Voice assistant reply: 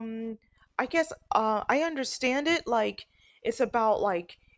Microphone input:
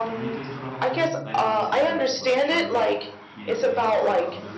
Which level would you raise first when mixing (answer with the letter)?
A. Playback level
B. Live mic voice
B